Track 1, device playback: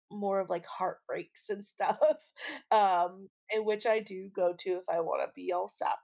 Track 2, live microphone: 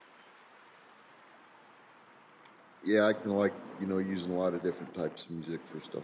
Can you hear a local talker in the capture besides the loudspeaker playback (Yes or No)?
Yes